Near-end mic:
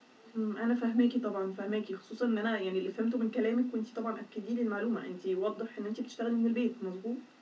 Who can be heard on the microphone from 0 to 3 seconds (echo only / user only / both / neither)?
echo only